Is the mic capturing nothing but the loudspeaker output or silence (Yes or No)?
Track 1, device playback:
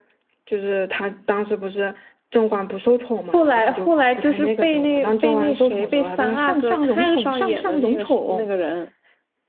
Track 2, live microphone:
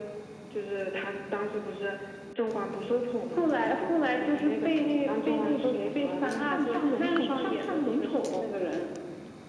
Yes